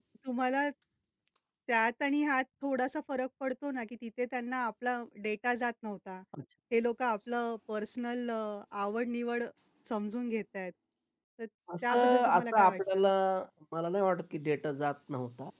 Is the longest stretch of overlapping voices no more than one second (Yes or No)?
No